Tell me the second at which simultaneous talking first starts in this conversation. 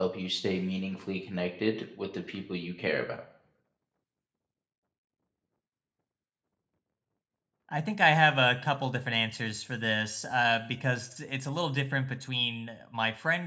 none

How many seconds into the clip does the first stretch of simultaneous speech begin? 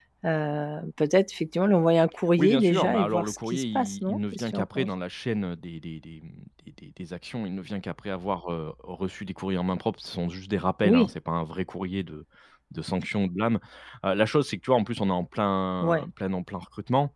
2.4 s

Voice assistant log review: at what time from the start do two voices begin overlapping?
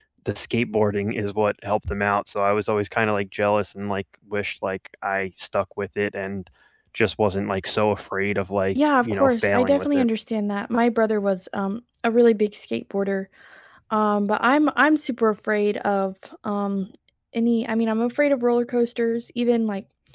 8.8 s

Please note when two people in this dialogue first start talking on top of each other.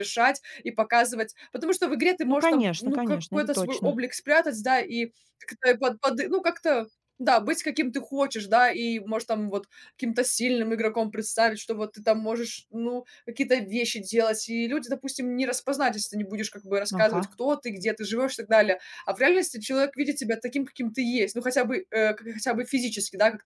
2.3 s

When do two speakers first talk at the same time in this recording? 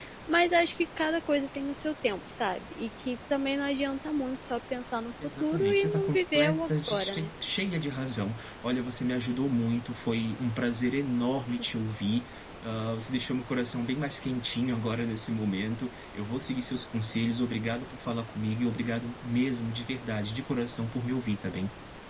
5.4 s

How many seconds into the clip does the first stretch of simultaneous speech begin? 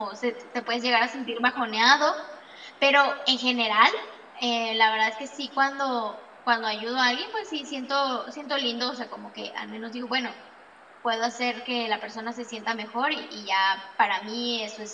none

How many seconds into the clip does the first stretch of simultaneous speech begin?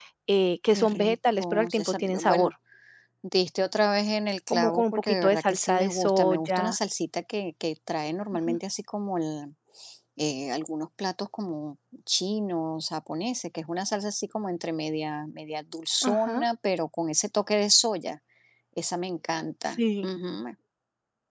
0.8 s

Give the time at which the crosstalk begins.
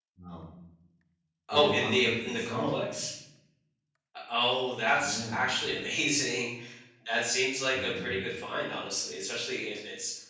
1.5 s

